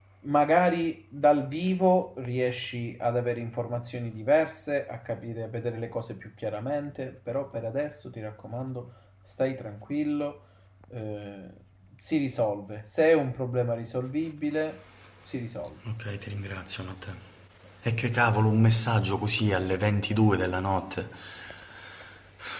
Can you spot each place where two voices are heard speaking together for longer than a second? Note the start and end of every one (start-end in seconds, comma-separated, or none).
none